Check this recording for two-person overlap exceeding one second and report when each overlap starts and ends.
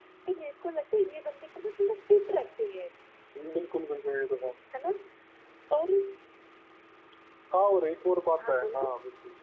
none

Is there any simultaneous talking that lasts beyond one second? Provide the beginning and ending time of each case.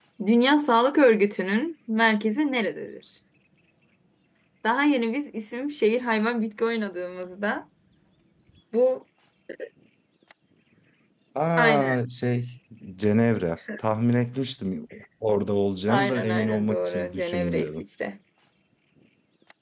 15.9-17.8

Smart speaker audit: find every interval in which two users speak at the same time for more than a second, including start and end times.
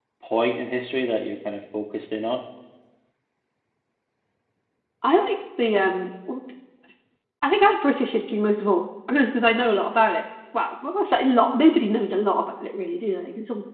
none

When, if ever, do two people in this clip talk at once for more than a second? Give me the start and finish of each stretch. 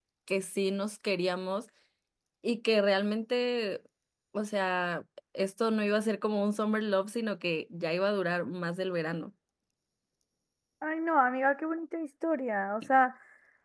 none

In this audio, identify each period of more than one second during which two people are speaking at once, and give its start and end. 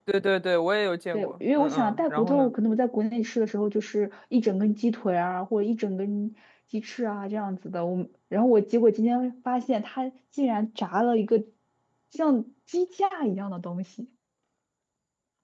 1.1-2.5

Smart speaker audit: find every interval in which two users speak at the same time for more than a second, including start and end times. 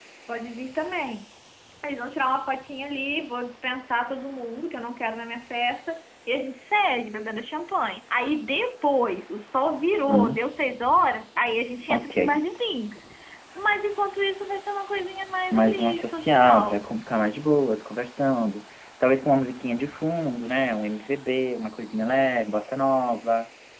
15.5-16.9

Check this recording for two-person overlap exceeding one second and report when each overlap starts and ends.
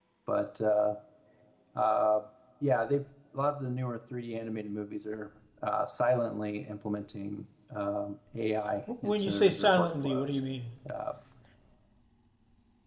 9.0-10.4

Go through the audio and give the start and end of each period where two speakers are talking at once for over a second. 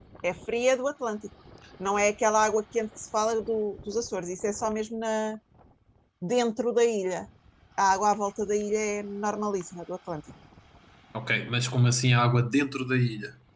none

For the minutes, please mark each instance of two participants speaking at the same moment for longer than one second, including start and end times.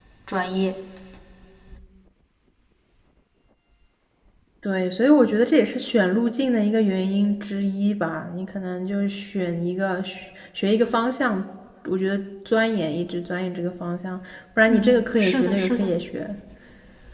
14.7-15.9

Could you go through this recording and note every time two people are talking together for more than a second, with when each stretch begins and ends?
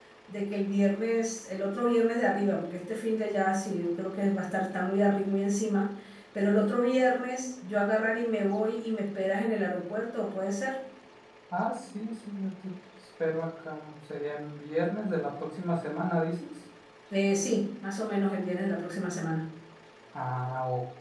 none

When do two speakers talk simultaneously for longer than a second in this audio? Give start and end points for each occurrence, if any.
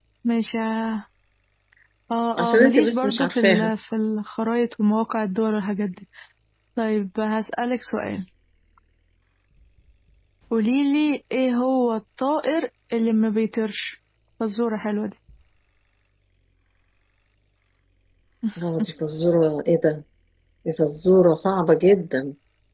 2.4-3.7

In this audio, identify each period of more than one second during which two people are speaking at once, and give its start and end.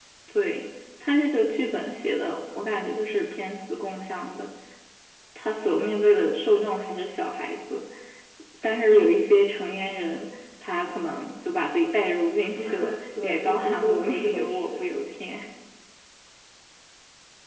13.2-14.8

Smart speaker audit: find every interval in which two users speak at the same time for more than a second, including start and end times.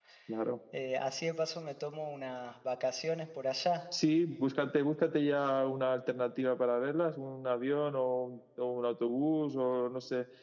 none

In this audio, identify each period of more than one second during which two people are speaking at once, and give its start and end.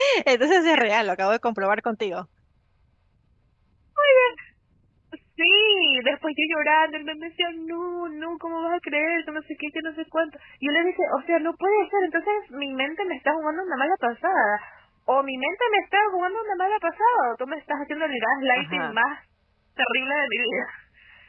none

